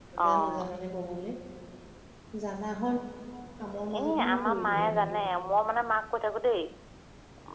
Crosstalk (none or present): present